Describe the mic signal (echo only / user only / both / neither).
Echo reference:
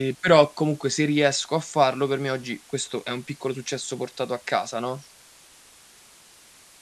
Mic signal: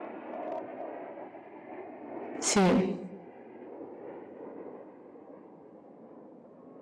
user only